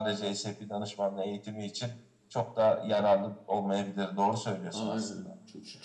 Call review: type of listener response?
taking over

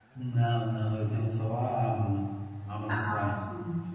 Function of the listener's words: taking over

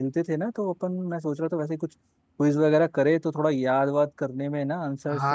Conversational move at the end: taking over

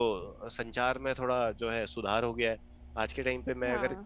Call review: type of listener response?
listening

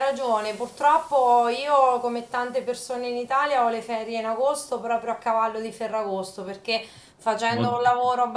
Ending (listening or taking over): listening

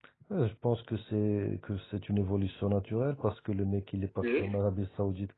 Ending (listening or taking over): listening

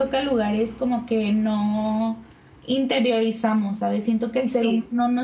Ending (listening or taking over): listening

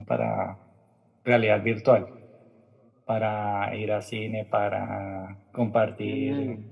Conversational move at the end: listening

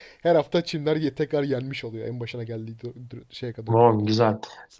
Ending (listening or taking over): taking over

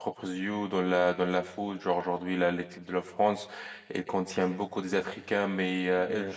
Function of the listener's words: listening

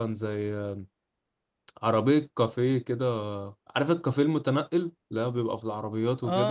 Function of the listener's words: taking over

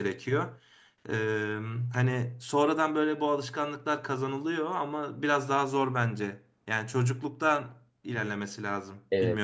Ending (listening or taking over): taking over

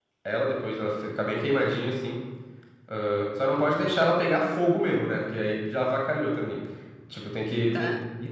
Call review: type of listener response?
listening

